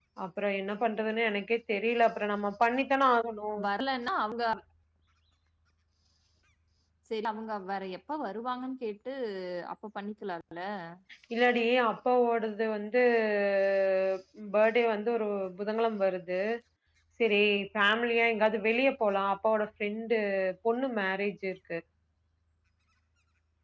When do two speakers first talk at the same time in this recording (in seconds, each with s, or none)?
none